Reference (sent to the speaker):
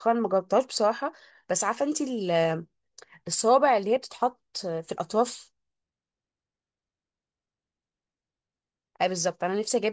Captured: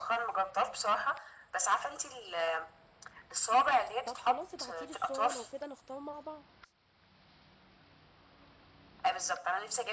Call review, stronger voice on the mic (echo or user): echo